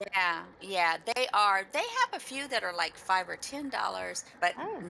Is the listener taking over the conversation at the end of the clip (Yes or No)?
No